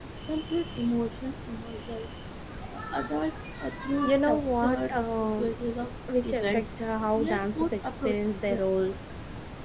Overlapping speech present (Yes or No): Yes